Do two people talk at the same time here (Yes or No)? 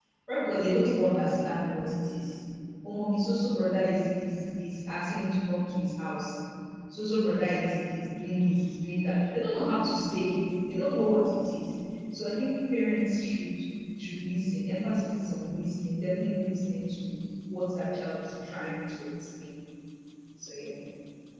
No